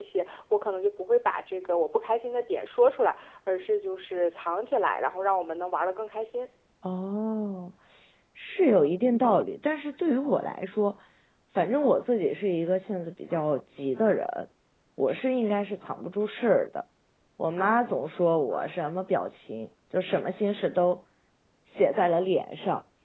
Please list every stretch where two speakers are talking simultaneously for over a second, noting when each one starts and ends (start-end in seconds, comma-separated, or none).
none